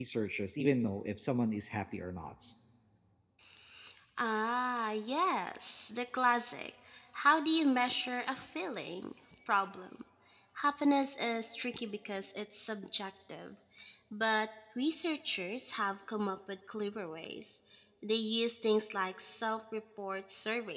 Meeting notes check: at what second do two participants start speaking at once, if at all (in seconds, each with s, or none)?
none